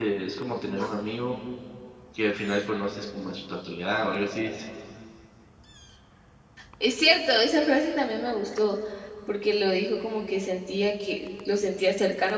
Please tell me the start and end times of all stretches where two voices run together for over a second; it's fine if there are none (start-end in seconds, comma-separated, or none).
none